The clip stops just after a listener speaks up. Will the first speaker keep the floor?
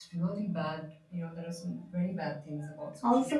No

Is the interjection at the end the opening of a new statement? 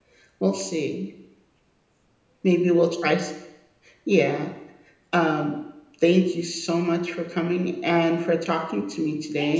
Yes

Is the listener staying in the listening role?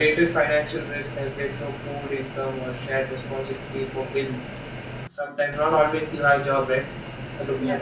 Yes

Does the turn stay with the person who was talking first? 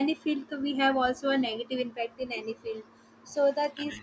Yes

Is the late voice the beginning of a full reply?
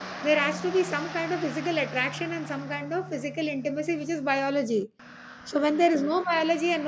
No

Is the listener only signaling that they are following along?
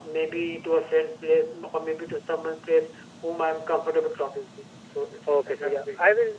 No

